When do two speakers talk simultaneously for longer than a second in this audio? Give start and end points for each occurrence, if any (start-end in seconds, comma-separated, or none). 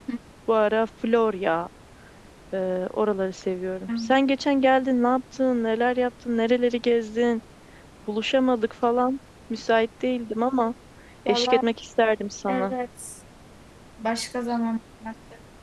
none